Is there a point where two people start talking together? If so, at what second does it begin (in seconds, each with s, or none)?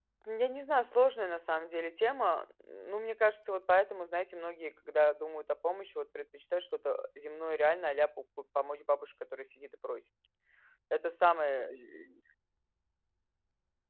none